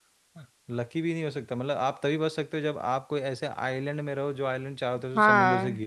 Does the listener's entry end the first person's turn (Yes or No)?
Yes